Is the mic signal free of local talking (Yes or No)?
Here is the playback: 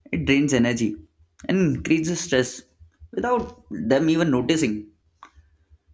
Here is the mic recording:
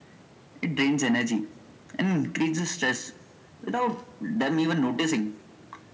Yes